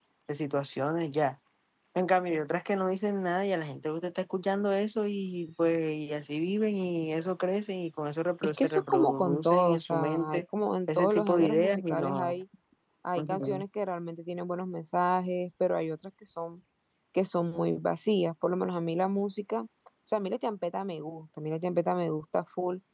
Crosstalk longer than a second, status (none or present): present